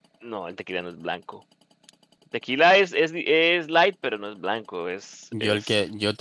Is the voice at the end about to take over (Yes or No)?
Yes